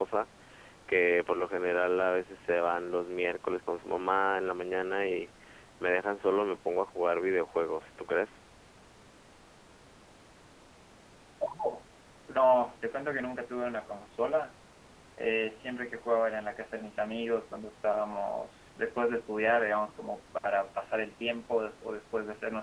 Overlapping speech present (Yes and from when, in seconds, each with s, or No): No